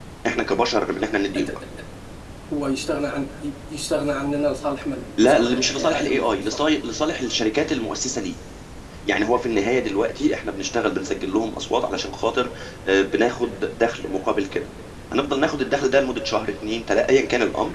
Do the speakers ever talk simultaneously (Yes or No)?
Yes